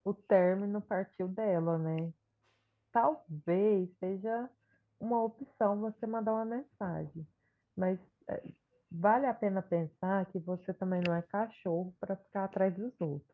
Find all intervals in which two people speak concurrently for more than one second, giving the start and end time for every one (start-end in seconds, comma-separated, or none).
none